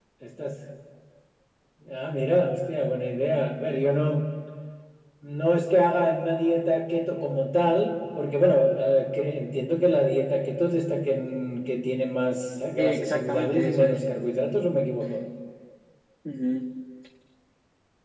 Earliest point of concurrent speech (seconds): 12.8 s

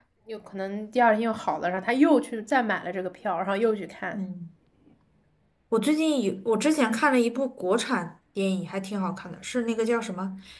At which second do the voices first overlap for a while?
none

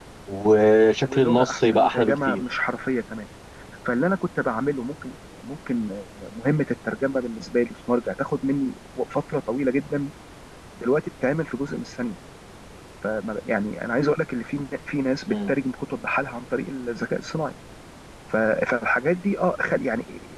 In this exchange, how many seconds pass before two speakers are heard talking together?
1.1 s

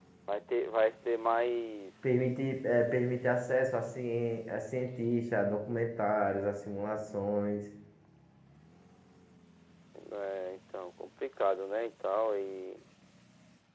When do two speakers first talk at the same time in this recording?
none

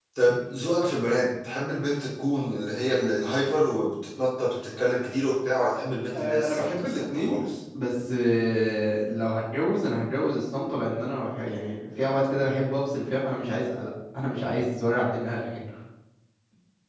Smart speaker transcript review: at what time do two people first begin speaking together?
6.1 s

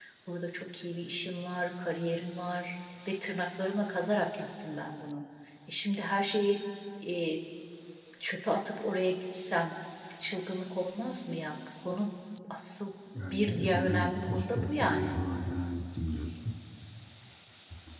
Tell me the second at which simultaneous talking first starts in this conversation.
13.3 s

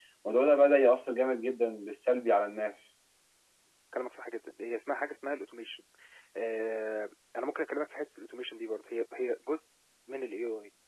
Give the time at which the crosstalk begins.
none

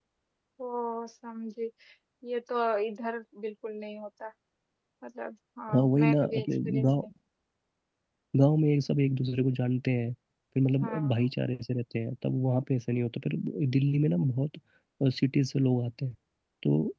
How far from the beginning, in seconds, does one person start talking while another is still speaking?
5.7 s

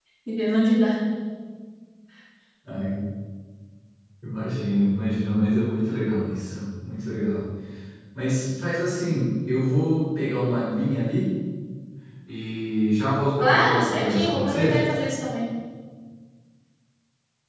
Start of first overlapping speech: 13.4 s

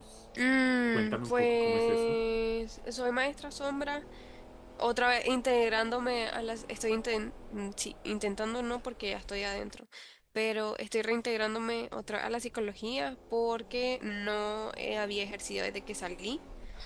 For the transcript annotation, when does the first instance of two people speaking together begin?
0.9 s

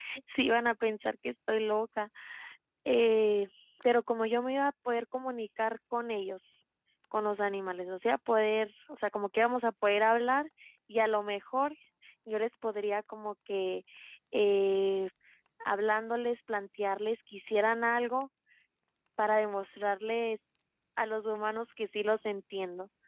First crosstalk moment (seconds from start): none

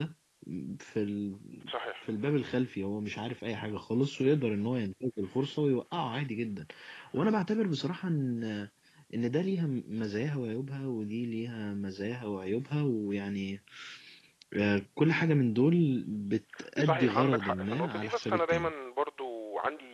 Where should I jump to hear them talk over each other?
16.8 s

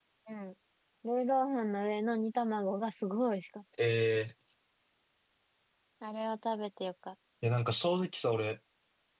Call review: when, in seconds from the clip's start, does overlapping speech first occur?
none

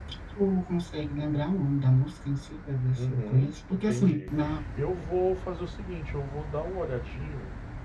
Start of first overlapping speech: 3.0 s

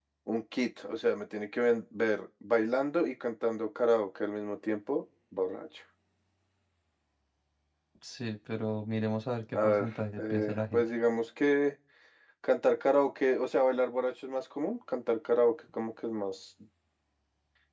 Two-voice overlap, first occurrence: 9.5 s

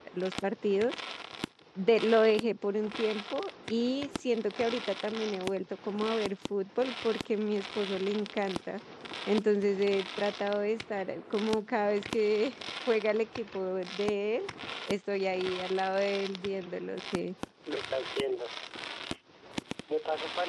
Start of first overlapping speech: none

